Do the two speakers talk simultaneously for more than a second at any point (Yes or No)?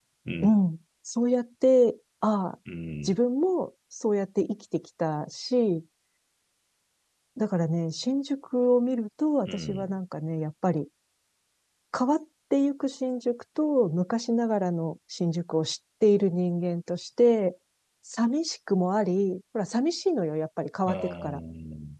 No